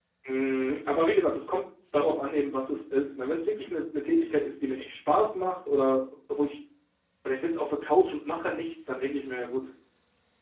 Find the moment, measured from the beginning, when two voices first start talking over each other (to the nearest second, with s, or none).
none